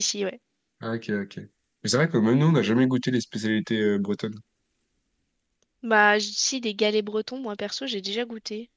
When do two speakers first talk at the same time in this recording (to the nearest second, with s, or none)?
none